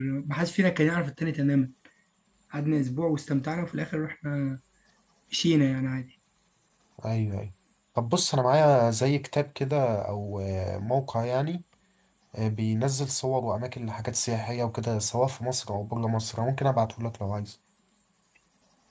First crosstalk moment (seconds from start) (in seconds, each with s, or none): none